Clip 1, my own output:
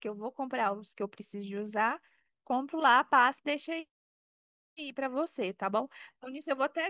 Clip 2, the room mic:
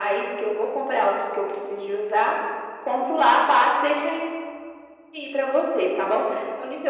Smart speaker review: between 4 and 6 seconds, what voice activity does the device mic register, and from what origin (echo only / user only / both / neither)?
echo only